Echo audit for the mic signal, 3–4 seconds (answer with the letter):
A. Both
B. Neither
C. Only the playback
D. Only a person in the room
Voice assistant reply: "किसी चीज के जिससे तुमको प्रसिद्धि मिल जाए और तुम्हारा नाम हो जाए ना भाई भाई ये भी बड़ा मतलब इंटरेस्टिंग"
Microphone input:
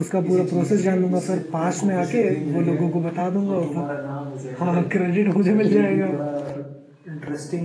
A